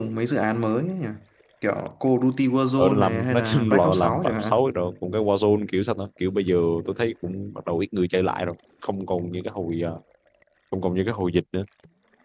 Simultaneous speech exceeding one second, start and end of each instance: 2.8-4.6

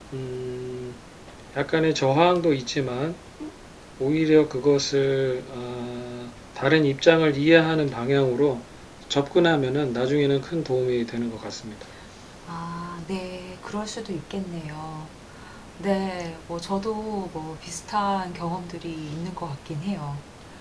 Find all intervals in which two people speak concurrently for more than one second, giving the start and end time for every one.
none

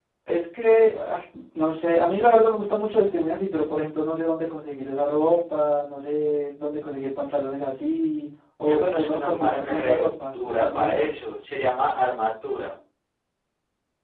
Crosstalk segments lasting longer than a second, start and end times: 8.7-11.1

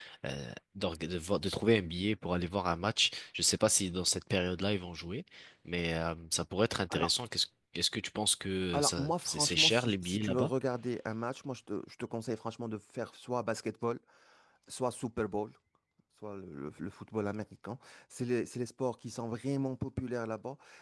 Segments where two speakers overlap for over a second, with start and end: 8.7-10.5

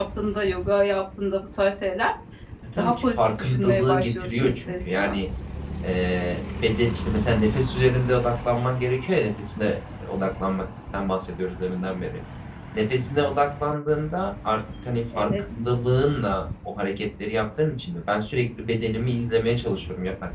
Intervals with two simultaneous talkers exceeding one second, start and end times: 2.8-5.2

